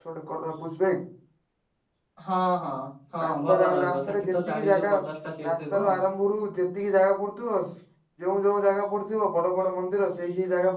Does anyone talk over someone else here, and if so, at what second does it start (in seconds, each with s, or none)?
3.2 s